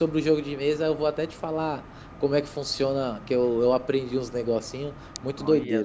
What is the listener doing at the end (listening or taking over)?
taking over